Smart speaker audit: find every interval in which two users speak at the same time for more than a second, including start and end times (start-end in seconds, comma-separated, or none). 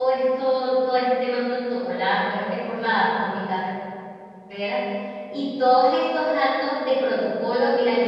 none